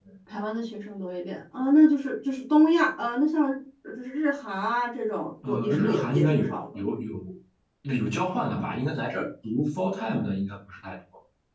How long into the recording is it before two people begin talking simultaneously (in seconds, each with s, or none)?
5.4 s